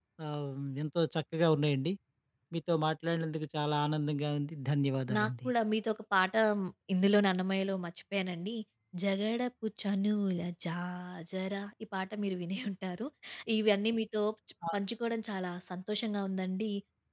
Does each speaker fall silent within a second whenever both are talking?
Yes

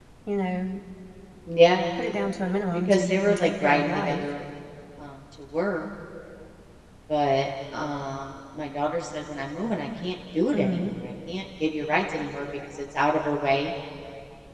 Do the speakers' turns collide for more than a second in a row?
Yes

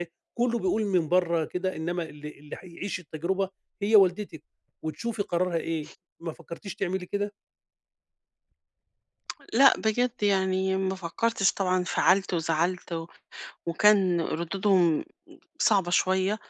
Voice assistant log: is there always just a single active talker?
Yes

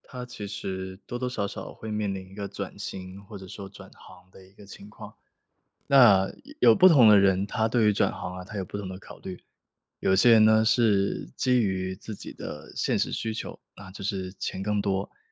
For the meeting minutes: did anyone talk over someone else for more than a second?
No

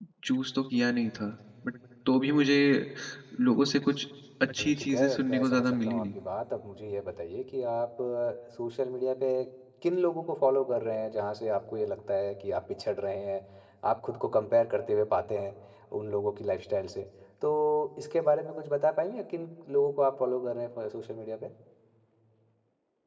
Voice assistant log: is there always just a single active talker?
No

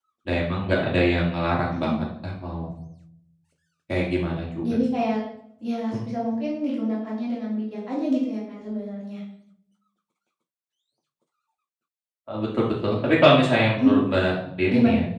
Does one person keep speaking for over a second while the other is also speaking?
No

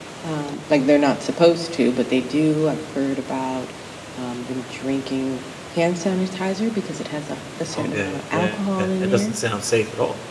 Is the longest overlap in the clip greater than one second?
Yes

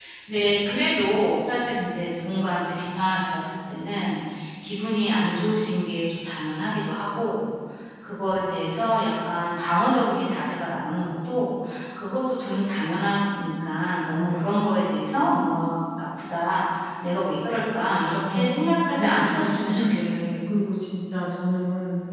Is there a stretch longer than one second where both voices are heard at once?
Yes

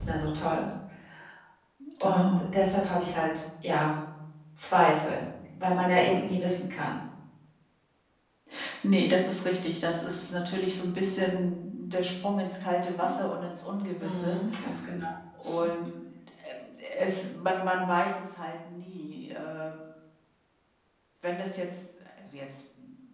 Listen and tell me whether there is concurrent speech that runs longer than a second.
No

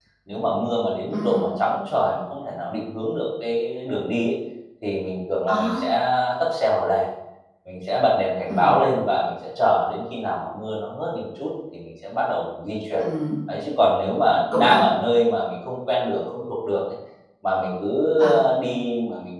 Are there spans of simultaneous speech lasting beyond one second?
No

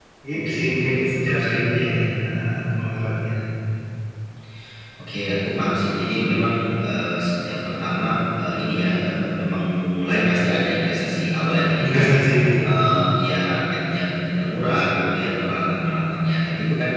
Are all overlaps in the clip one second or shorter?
No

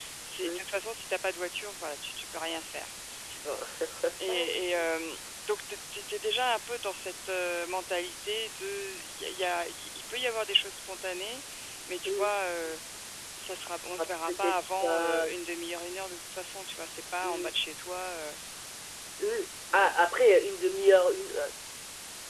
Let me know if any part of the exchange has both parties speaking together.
Yes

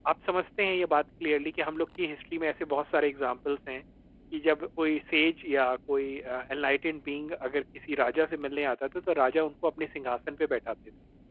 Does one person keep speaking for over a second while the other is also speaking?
No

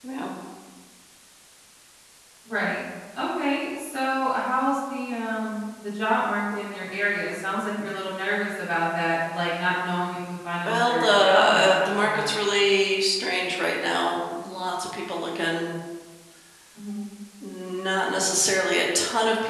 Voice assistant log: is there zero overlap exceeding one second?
No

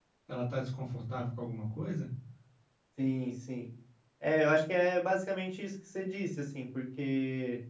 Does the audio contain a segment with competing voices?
No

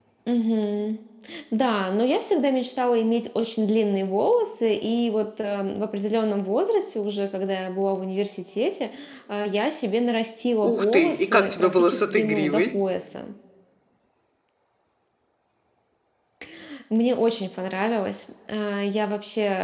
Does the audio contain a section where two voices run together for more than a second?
Yes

